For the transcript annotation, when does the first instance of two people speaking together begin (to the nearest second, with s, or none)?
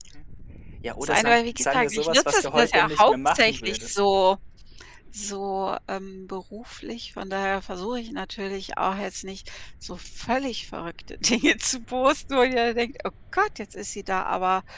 1 s